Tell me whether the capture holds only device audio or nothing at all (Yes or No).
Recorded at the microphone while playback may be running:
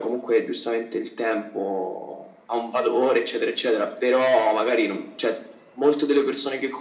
Yes